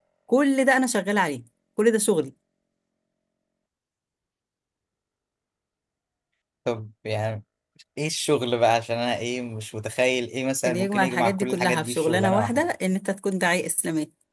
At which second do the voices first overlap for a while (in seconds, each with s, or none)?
10.6 s